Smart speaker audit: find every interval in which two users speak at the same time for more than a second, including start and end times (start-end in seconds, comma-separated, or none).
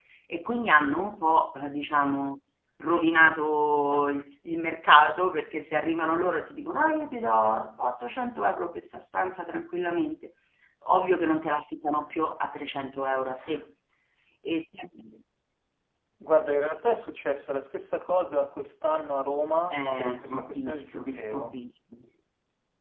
19.8-21.6